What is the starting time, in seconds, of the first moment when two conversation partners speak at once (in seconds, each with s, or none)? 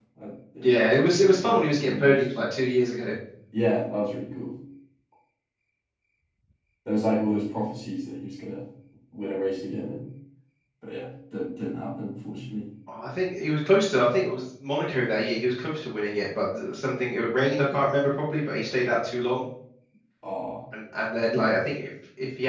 0.6 s